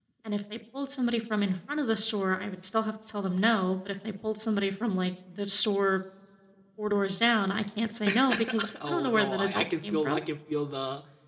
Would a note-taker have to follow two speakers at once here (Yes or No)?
Yes